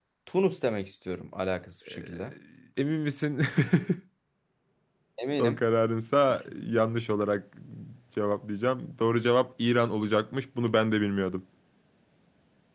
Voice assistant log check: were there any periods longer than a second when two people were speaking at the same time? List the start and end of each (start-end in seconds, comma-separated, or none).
none